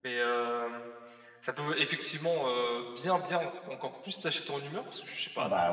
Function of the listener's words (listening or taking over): listening